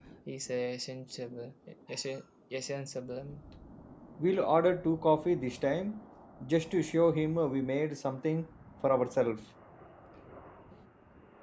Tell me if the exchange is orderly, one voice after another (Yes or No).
Yes